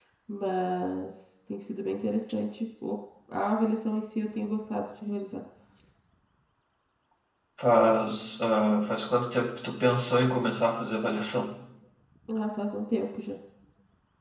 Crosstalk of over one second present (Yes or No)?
No